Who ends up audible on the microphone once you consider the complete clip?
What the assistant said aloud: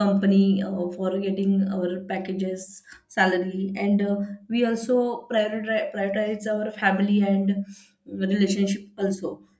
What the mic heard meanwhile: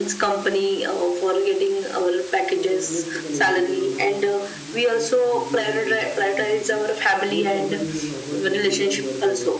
both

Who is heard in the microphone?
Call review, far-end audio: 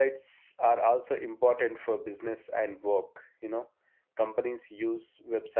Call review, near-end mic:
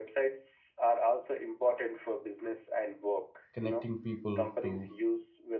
both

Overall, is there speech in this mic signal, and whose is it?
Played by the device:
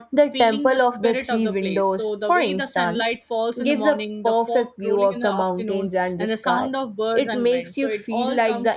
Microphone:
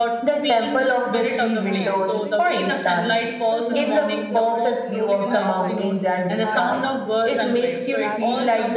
both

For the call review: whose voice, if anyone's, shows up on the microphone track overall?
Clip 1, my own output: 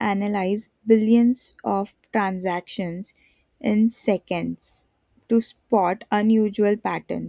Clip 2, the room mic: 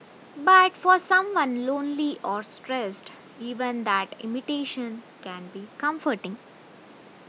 user only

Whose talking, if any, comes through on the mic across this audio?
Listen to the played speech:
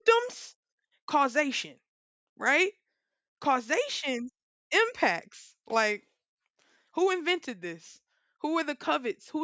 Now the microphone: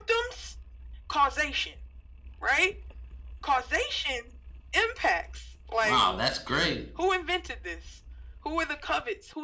both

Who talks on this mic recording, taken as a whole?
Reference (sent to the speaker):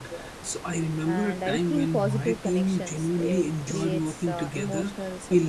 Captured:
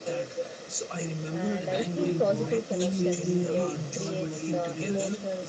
both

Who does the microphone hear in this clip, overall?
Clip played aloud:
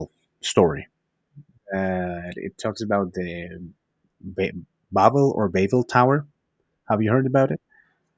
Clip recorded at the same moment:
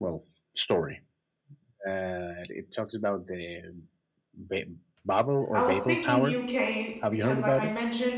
both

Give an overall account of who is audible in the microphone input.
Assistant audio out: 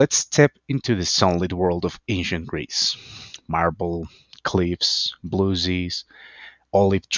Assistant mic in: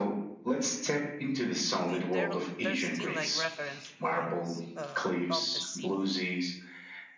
both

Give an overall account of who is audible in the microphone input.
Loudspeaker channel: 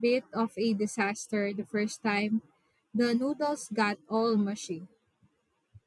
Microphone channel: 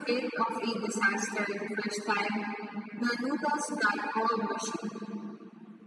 echo only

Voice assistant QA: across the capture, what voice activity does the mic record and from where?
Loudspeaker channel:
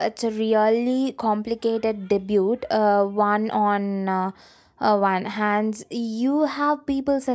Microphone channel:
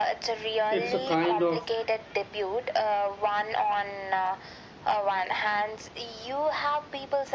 both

